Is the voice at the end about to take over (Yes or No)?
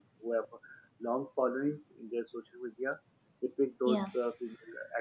No